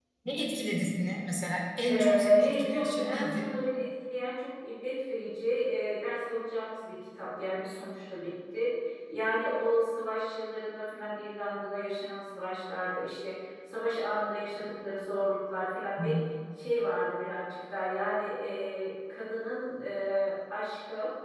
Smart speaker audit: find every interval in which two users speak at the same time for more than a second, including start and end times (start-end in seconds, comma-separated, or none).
1.9-3.5